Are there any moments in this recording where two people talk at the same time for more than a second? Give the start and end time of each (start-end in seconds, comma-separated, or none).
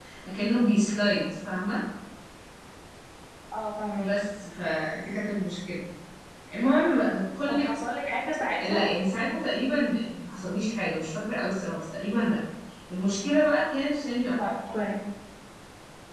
none